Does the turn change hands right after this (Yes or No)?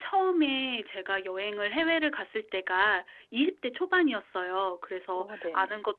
No